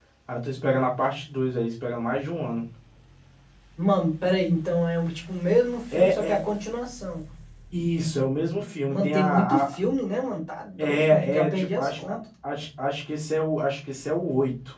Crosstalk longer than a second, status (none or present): present